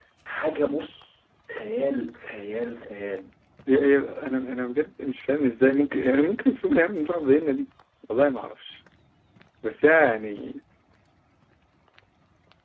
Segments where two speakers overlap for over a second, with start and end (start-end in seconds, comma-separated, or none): none